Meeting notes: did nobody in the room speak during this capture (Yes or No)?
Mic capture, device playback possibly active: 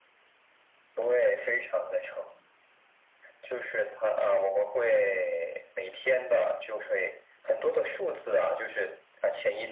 Yes